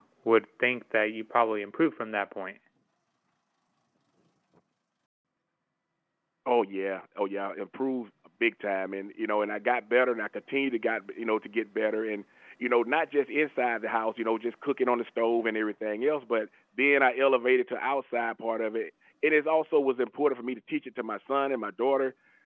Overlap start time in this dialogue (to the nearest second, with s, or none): none